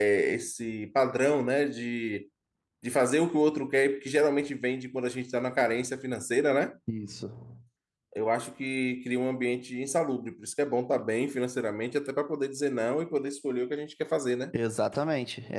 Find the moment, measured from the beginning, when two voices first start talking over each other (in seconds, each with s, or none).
none